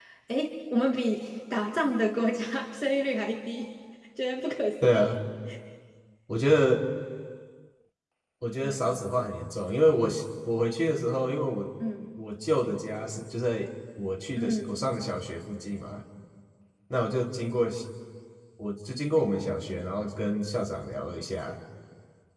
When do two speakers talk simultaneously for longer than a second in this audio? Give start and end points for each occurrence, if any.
none

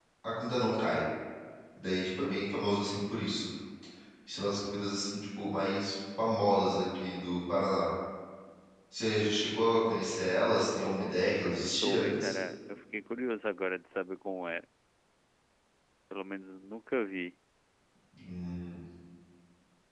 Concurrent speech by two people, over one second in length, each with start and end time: 10.8-12.4

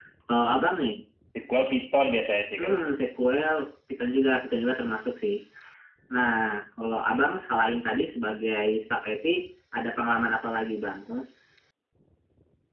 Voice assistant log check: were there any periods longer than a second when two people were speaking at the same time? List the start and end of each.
none

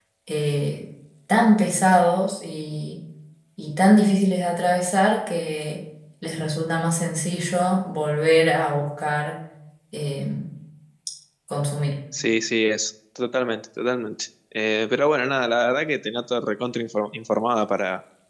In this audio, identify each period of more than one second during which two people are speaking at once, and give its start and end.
none

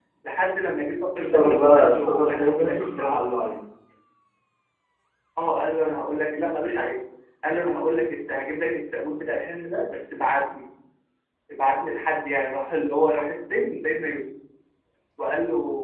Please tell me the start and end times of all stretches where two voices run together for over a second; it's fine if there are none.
1.2-3.1

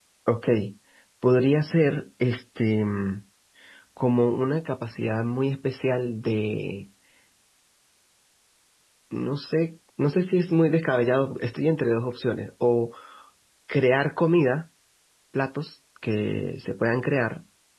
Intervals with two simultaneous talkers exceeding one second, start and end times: none

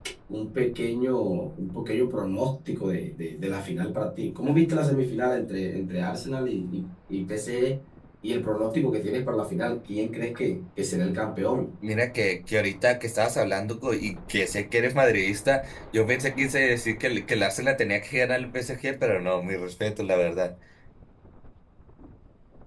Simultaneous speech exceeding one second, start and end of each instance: none

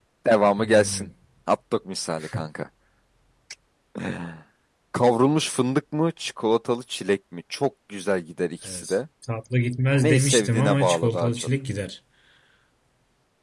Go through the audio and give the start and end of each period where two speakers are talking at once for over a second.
10.0-11.5

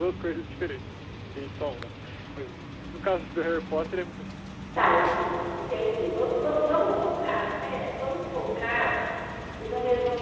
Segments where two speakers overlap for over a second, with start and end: none

